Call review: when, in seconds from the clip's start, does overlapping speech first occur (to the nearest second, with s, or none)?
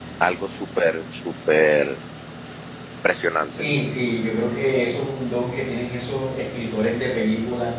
none